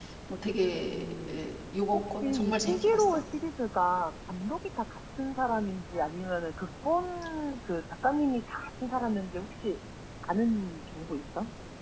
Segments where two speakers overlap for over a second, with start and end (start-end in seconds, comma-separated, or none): 1.9-3.2